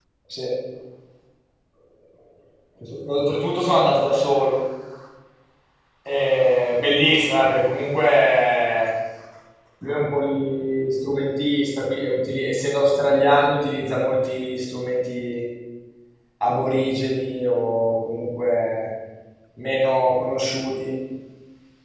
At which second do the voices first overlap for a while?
none

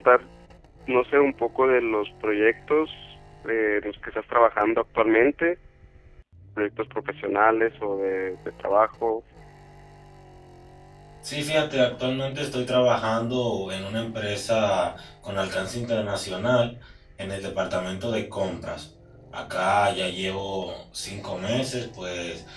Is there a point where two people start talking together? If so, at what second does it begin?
none

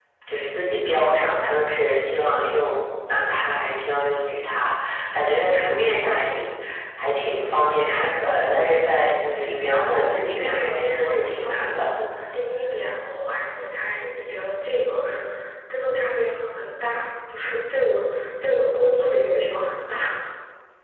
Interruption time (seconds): 9.8 s

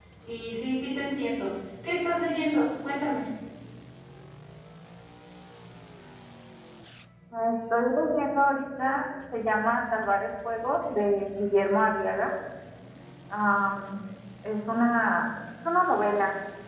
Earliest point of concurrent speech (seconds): none

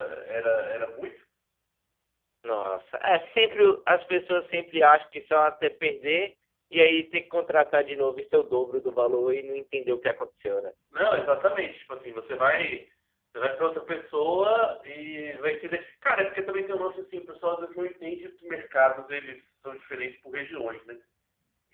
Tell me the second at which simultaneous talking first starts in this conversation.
none

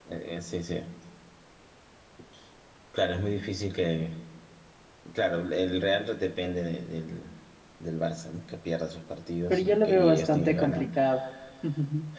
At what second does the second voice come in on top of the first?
9.5 s

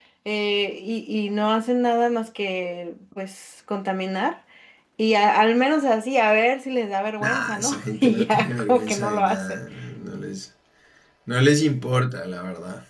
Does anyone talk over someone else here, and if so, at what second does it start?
7.2 s

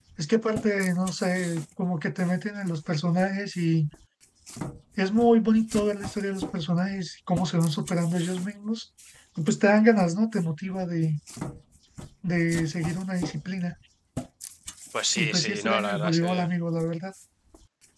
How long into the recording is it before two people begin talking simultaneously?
15.2 s

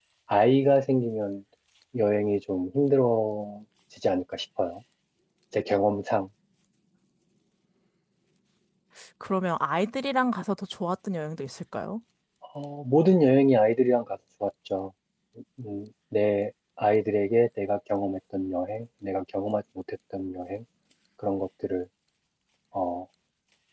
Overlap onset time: none

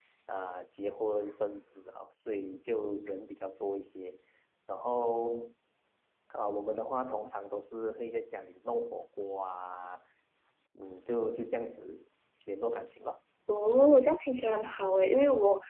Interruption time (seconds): none

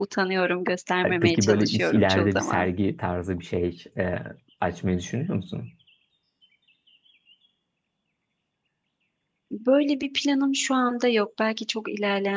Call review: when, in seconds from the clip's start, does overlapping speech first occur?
1.0 s

